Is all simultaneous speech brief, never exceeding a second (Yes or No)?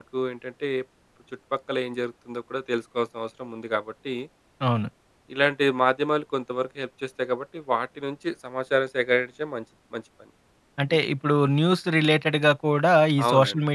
Yes